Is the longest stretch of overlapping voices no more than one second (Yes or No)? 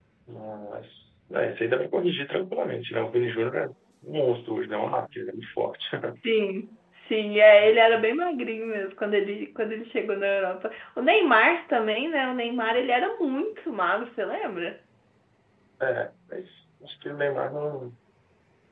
Yes